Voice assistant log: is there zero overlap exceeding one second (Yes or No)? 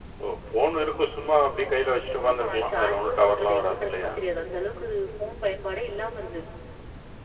No